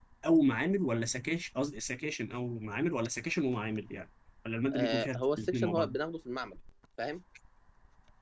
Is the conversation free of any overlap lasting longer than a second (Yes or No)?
No